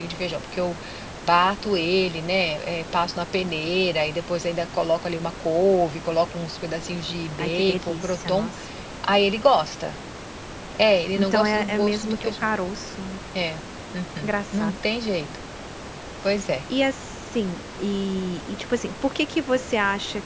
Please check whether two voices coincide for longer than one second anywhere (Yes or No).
Yes